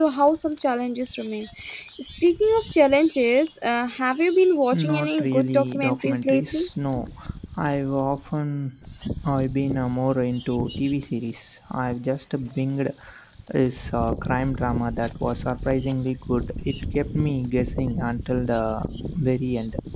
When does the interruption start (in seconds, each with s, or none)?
4.7 s